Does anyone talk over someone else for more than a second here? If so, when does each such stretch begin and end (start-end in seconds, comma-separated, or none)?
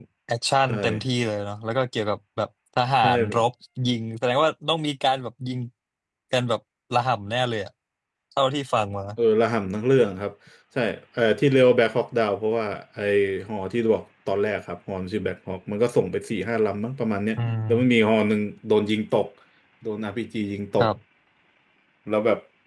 none